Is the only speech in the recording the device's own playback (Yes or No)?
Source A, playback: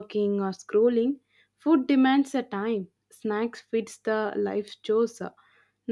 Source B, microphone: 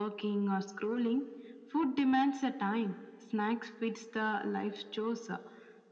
Yes